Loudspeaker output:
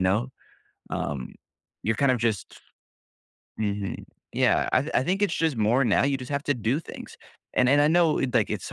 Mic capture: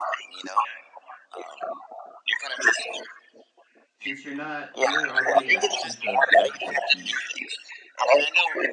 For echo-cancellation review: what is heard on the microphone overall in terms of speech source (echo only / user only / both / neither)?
both